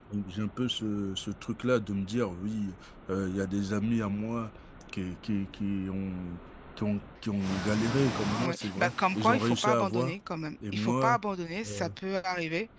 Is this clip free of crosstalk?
No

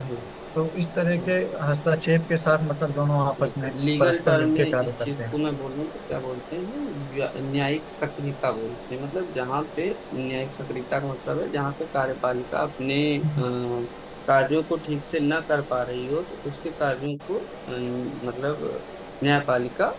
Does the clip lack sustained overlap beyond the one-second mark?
No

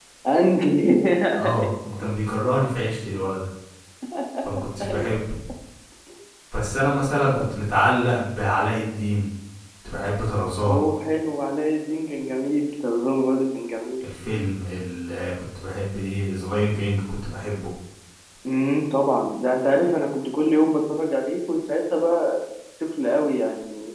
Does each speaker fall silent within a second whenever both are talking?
Yes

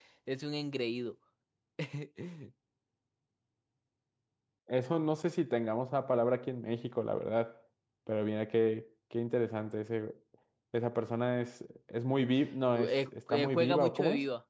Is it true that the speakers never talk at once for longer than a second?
No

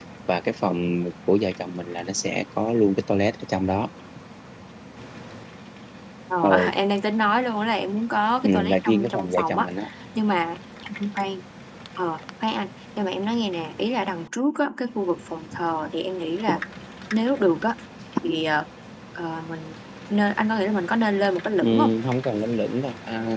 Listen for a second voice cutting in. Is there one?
Yes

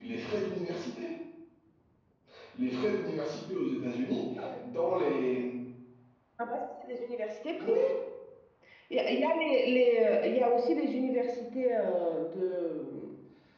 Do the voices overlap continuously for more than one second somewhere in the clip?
No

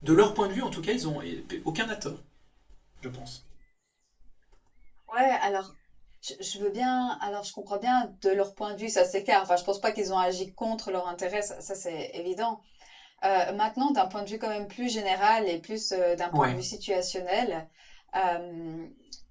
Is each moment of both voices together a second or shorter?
Yes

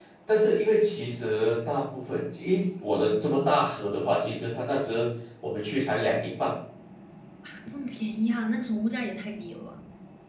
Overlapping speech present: No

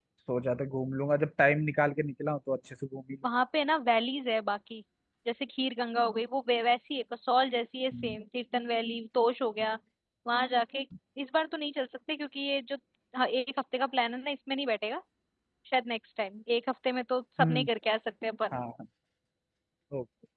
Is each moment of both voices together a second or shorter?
Yes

